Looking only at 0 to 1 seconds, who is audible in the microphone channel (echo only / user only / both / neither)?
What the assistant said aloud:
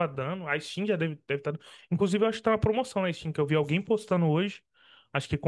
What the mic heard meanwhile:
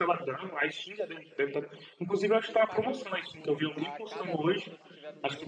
echo only